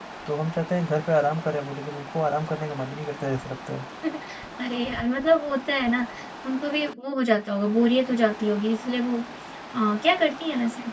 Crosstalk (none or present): none